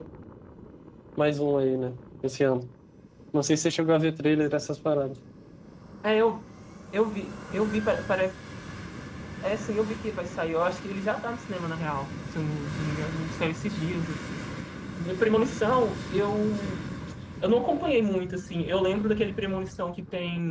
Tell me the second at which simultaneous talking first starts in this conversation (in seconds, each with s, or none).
none